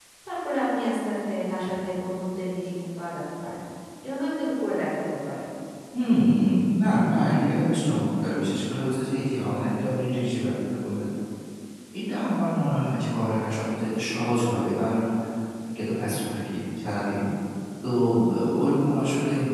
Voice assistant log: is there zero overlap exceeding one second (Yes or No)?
Yes